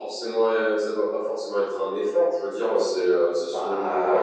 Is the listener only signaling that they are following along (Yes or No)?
Yes